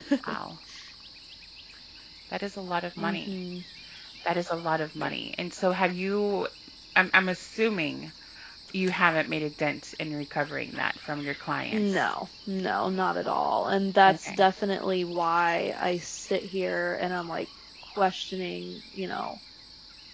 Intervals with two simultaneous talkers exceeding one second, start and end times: none

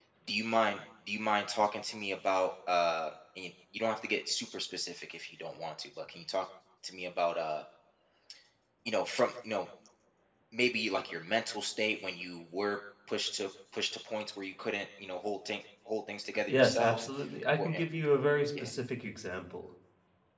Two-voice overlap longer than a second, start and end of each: none

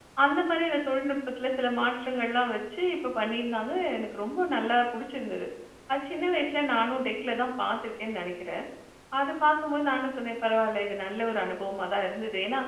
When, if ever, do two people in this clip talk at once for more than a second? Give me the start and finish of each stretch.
none

